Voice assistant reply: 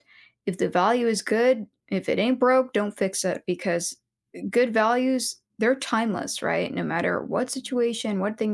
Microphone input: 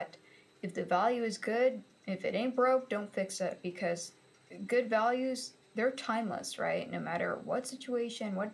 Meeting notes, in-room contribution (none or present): none